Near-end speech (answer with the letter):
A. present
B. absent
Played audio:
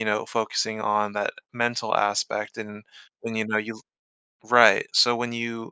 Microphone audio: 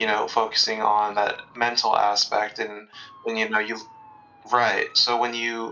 B